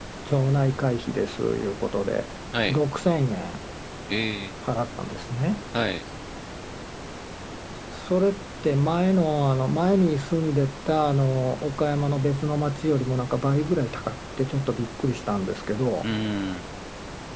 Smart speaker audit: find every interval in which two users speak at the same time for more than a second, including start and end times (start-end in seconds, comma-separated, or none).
none